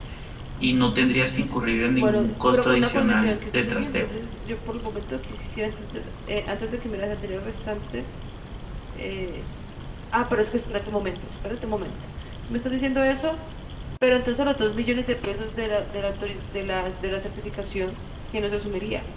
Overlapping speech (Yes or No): Yes